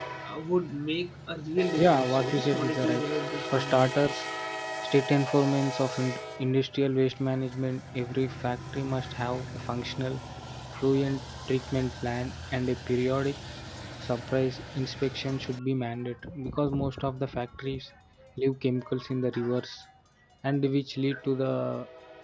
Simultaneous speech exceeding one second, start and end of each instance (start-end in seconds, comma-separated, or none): 1.8-3.0